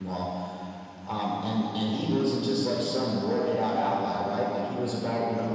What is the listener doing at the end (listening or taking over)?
listening